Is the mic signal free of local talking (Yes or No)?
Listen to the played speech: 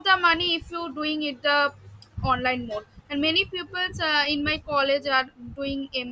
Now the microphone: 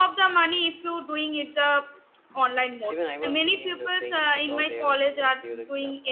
No